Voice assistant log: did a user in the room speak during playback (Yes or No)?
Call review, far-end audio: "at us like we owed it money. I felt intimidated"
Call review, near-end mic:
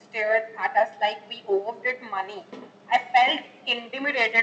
No